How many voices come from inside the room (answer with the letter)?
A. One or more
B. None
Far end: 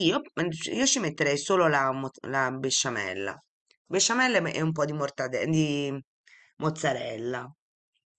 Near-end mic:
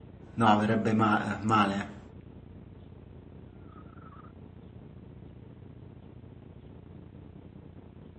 A